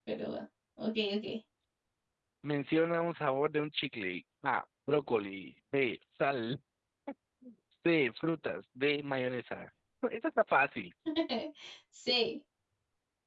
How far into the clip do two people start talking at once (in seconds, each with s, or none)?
none